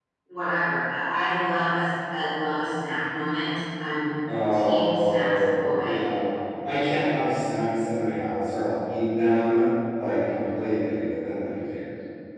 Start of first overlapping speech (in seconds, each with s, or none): 4.3 s